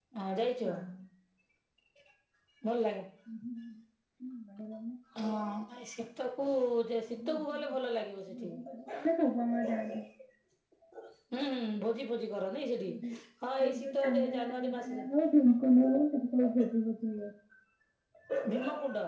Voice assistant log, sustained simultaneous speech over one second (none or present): present